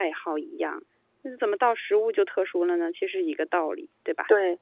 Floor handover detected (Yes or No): Yes